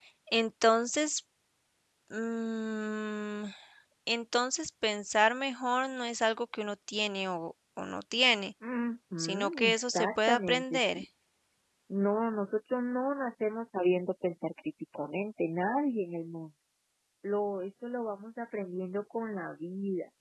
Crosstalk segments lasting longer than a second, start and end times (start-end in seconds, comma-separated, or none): 9.2-11.0